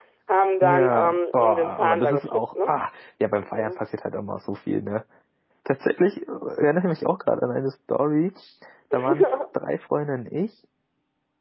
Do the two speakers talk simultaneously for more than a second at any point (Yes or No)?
Yes